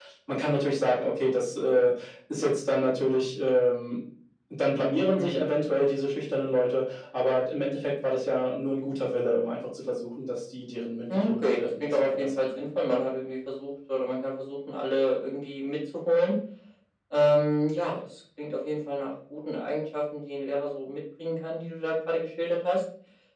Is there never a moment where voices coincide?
No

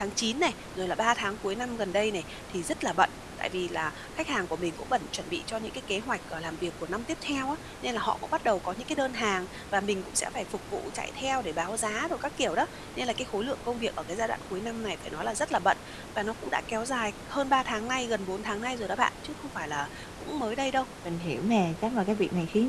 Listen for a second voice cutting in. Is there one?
No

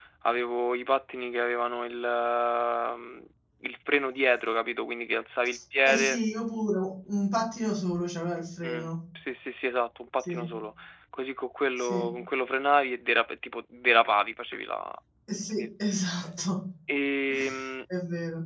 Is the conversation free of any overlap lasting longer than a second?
Yes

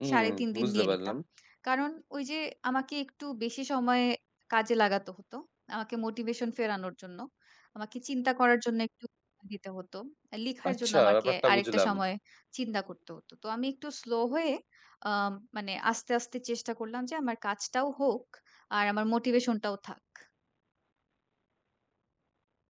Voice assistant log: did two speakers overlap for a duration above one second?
Yes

